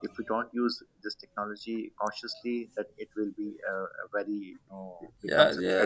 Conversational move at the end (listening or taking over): taking over